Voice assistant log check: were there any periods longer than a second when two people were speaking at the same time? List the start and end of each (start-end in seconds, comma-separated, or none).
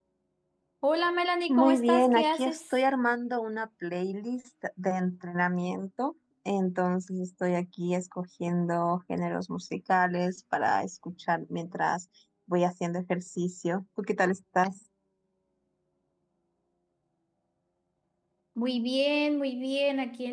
1.5-2.8